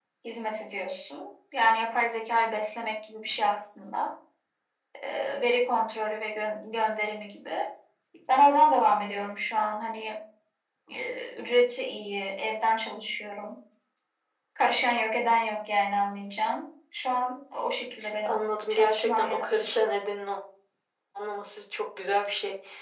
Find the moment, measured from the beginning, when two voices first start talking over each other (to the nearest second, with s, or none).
18 s